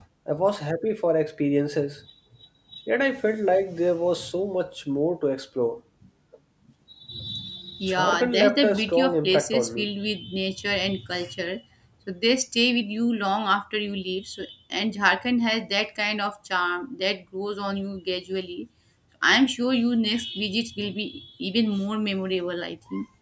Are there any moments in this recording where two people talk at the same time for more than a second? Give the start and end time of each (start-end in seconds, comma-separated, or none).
7.9-9.9